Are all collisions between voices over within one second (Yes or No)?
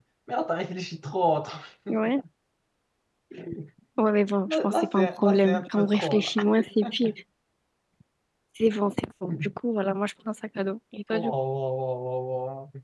No